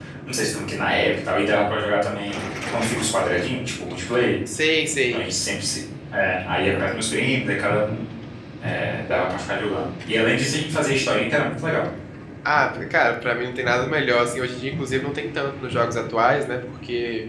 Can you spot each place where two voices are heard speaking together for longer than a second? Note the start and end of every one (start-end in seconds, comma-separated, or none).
none